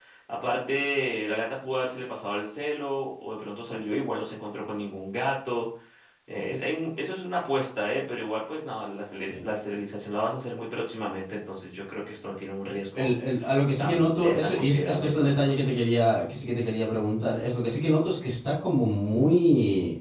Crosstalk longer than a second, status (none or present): present